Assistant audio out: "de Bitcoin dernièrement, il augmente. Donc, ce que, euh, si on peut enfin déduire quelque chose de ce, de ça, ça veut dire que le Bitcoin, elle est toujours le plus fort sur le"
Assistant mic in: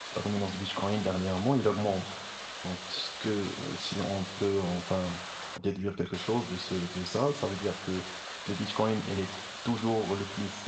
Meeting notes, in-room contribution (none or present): none